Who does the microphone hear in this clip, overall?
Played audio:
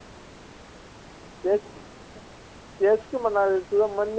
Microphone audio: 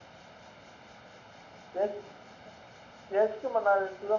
echo only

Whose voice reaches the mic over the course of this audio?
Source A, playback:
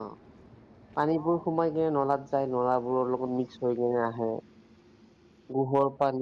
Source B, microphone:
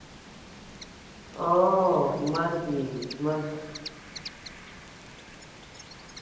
user only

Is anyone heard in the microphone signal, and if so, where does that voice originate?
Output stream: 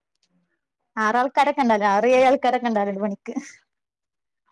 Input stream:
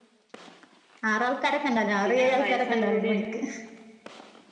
both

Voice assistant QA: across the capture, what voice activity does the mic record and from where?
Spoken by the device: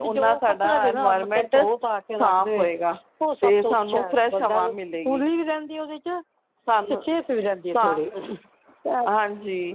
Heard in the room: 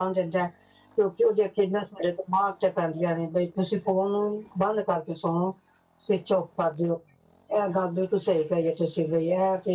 user only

